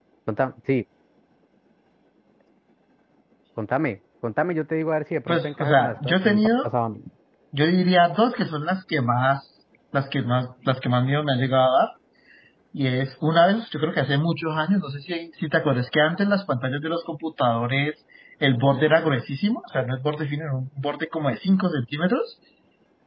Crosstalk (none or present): present